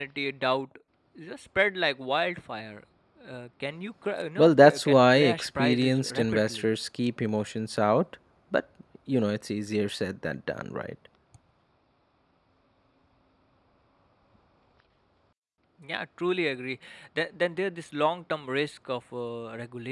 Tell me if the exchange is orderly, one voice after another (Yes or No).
No